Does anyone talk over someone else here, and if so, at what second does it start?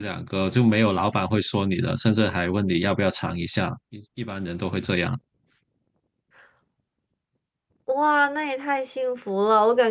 none

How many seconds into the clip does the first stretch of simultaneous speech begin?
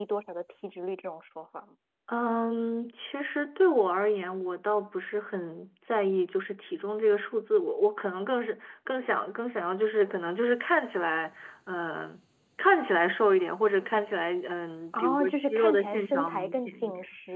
14.9 s

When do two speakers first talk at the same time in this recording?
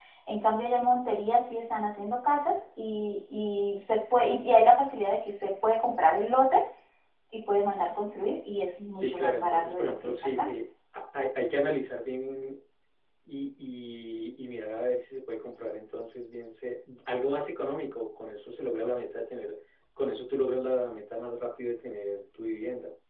8.9 s

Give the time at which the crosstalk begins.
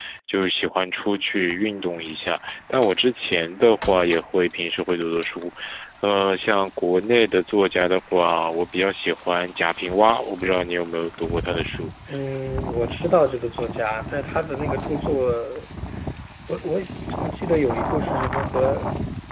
none

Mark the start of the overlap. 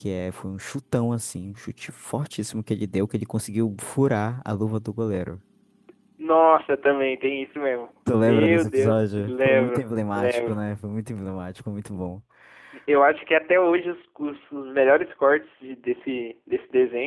8.1 s

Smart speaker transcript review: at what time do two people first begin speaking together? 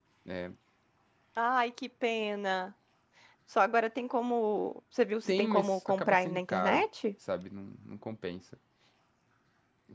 5.2 s

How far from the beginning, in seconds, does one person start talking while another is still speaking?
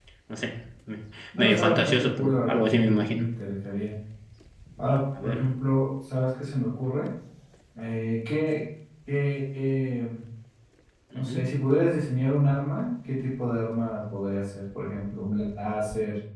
1.4 s

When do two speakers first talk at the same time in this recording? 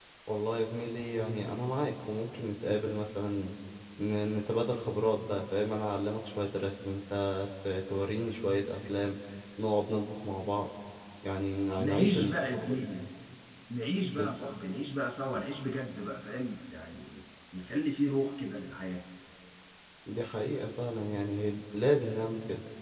11.8 s

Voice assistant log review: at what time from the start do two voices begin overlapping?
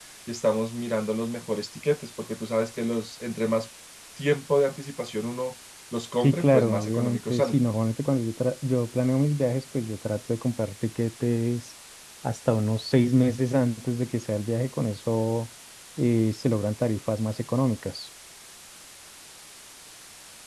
6.2 s

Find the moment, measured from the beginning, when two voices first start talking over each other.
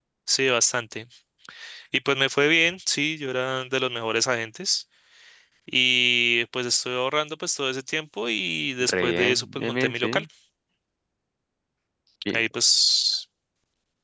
8.8 s

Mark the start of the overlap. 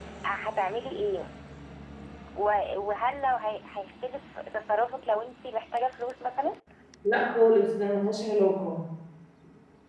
none

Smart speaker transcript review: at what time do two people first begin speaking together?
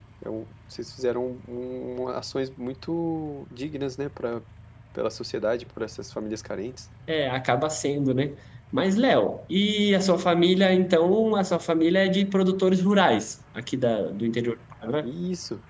none

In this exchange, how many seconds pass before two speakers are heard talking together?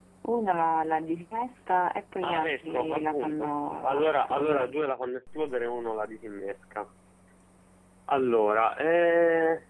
2.2 s

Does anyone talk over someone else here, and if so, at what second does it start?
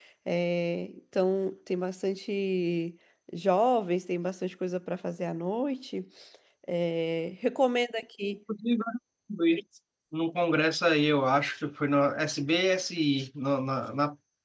none

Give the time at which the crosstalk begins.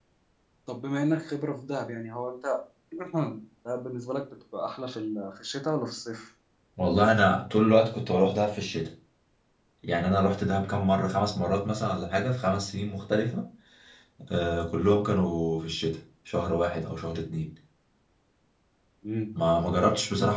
none

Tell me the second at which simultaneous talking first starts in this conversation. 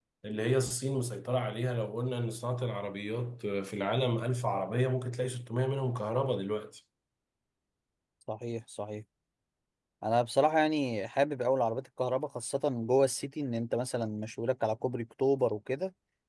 none

